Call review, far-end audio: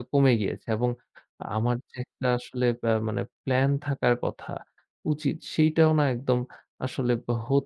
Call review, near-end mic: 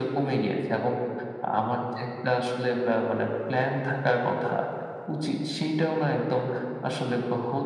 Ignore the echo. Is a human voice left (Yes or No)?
No